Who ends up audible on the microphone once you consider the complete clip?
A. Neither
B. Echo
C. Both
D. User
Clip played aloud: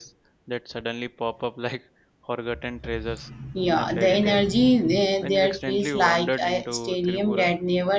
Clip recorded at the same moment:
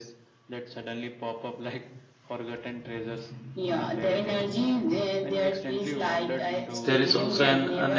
C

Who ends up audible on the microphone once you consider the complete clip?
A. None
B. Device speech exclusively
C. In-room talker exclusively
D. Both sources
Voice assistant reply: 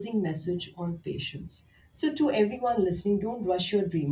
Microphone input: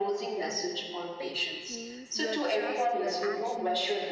D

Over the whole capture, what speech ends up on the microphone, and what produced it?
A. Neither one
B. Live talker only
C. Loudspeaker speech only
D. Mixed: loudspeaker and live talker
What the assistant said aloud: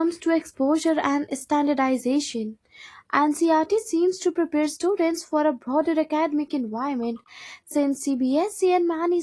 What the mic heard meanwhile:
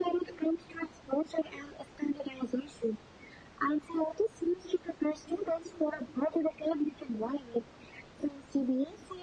C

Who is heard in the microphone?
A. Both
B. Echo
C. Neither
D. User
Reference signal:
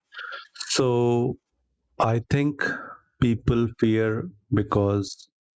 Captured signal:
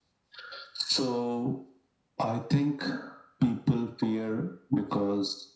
B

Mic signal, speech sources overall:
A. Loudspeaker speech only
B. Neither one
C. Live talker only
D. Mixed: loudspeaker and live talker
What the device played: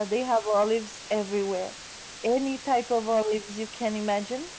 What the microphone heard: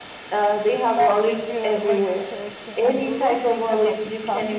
D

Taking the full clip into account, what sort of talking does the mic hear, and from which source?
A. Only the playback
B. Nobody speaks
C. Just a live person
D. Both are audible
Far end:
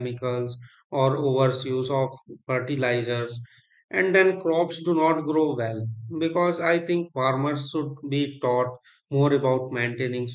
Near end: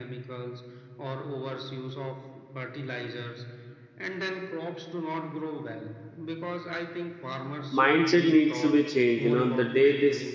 D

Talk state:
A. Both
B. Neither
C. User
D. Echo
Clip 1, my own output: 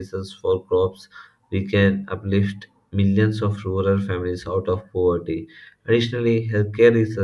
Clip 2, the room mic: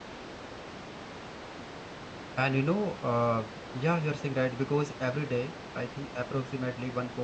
C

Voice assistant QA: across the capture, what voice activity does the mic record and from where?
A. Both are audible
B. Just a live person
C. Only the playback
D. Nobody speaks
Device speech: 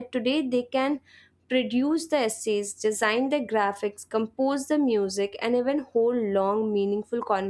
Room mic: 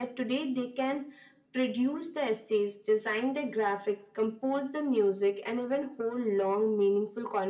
C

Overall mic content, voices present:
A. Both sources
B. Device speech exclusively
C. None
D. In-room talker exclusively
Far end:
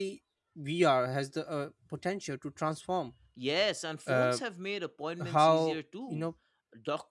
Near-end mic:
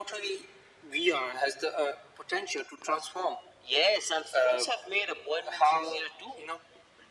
B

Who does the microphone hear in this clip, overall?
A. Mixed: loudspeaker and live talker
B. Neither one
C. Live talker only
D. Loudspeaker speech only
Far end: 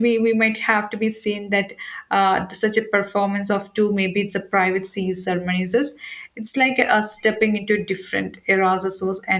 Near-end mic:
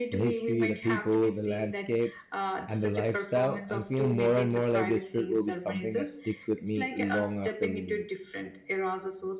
A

